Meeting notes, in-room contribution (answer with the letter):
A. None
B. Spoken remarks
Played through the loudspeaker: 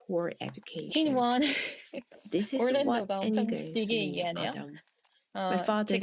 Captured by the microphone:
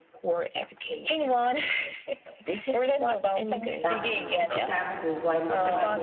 B